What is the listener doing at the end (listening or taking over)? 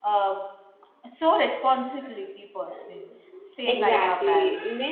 taking over